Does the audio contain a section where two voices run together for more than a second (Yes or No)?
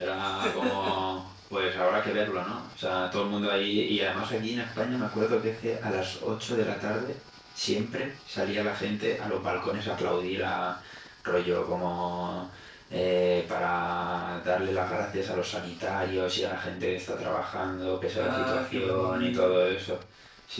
Yes